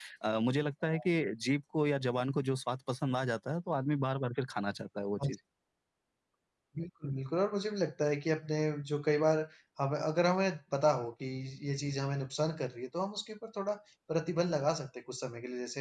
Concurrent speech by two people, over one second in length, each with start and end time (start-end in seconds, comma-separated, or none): none